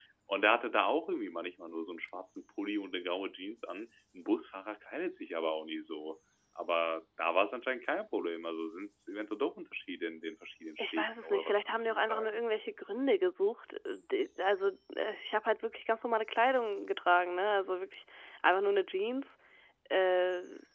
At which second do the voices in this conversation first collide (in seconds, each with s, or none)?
10.8 s